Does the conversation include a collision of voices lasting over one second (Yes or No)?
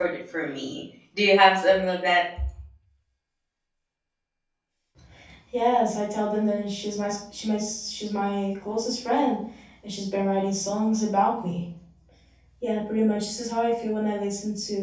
No